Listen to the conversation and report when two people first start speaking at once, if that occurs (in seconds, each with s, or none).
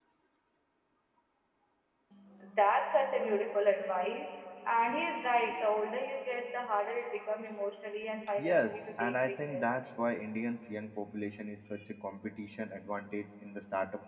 8.4 s